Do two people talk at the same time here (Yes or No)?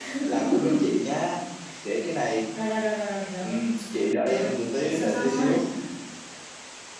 Yes